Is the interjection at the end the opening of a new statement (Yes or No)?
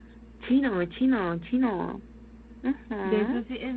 Yes